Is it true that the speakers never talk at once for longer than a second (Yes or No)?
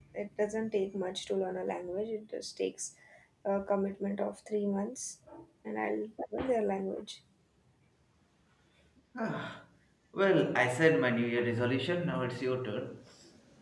Yes